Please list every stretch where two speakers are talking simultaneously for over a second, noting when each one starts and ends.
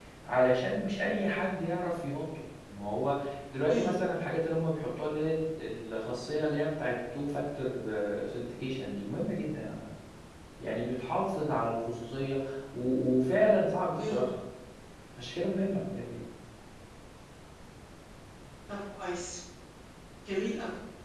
none

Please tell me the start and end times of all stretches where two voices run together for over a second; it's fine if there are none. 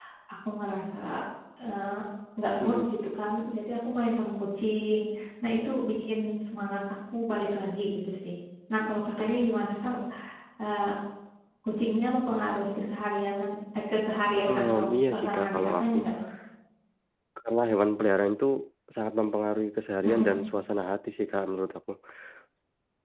14.4-16.0

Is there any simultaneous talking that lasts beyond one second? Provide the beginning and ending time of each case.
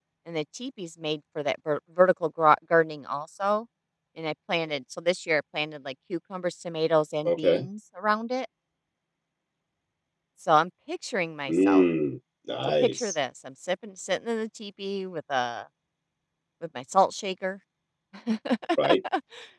none

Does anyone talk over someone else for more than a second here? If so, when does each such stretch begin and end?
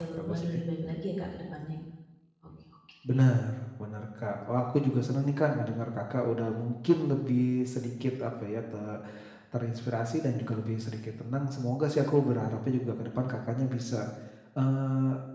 none

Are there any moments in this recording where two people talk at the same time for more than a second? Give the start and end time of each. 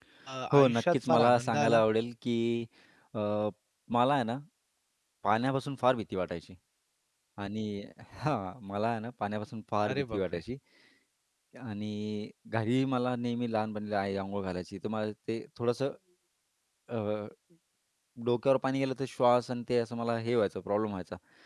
0.5-1.8

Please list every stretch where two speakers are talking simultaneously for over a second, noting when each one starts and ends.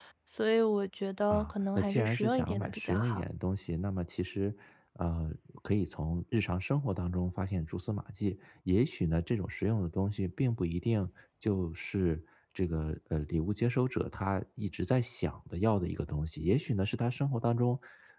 1.3-3.2

